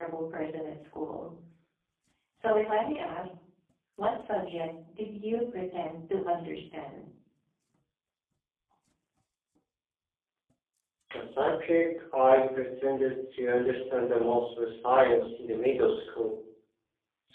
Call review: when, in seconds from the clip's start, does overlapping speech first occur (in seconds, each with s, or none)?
none